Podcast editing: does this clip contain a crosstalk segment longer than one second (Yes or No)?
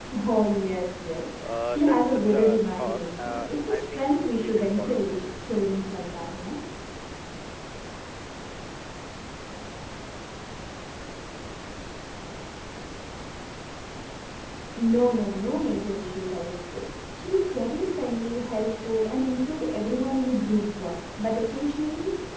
Yes